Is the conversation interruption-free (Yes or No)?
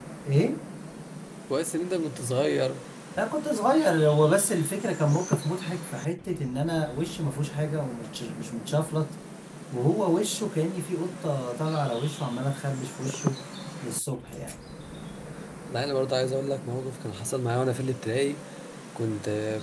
Yes